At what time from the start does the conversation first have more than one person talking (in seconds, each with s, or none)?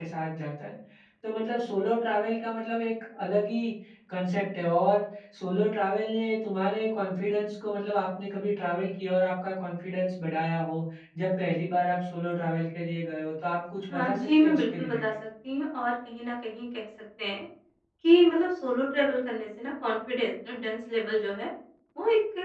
13.9 s